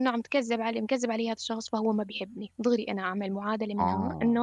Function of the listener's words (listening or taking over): listening